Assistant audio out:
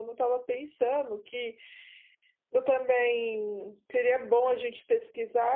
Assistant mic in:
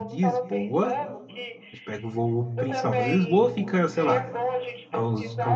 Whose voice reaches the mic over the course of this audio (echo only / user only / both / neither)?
both